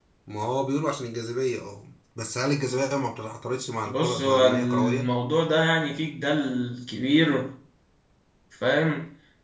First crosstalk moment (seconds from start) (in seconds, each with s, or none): 3.9 s